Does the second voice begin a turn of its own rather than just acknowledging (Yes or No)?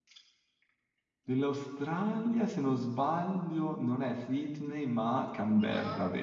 Yes